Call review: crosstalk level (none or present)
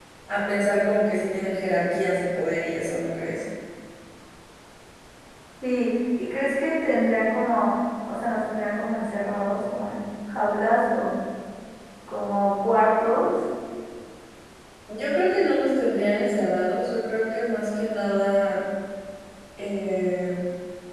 none